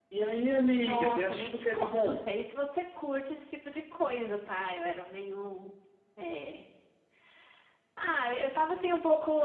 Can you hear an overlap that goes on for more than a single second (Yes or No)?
Yes